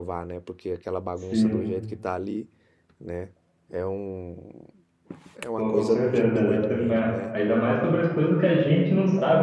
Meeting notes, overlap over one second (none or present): present